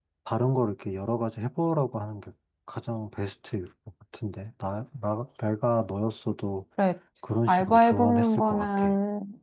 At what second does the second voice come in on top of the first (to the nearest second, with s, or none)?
7 s